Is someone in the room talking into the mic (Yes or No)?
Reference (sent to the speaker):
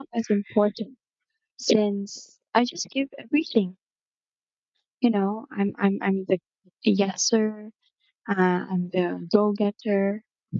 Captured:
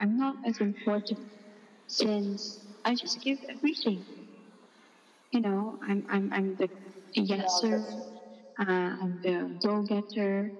Yes